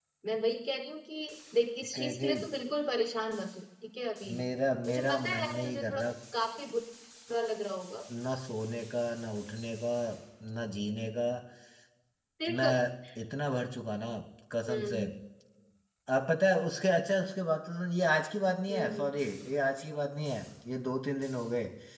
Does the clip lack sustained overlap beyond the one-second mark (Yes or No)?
No